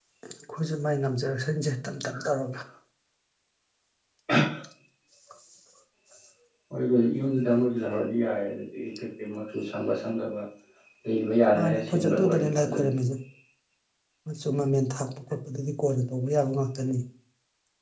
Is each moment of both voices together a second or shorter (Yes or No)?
No